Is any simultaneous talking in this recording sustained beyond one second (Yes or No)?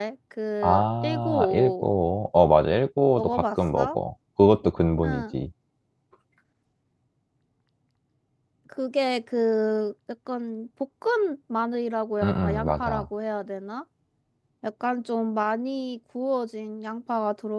Yes